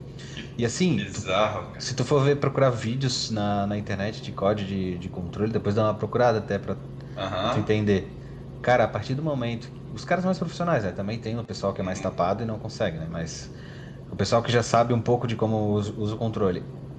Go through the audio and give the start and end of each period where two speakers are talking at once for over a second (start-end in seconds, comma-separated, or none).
none